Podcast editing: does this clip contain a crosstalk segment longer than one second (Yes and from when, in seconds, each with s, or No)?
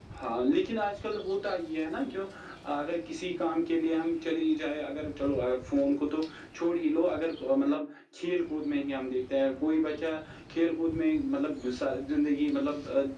No